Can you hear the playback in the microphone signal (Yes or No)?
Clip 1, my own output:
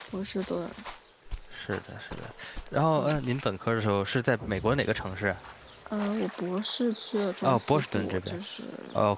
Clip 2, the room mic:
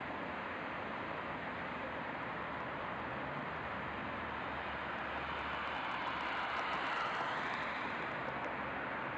No